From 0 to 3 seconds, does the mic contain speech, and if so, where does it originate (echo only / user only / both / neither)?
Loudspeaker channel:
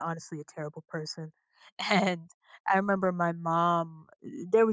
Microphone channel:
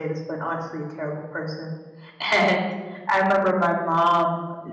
echo only